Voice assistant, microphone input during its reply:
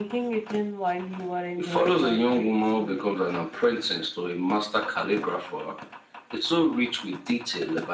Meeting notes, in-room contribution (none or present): none